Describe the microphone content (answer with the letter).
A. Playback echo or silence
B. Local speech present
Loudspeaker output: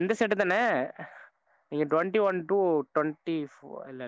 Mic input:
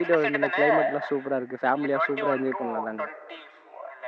B